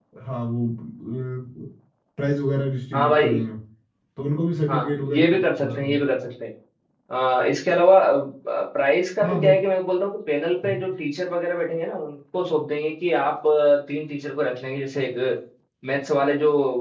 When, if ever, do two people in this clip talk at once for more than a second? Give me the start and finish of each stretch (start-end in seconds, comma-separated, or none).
4.7-6.0